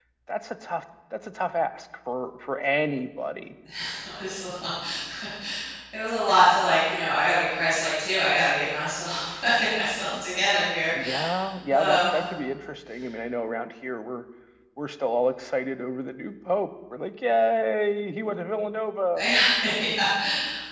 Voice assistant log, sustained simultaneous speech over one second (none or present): none